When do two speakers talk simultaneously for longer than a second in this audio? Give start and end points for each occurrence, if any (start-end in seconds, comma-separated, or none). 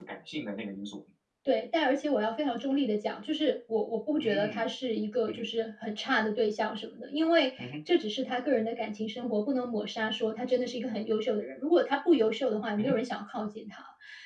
none